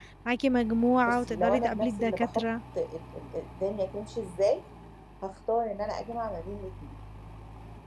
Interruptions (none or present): present